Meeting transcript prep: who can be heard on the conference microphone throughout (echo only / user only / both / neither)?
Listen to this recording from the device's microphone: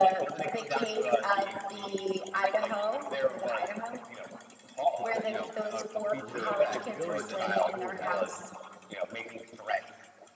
both